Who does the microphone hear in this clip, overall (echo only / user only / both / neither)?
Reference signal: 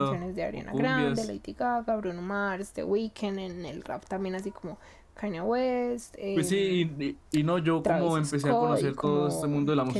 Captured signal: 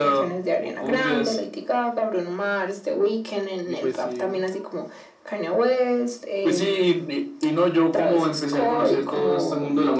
both